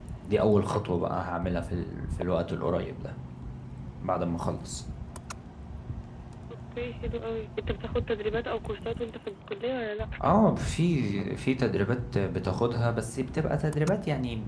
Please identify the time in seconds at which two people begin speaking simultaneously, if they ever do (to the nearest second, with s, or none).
none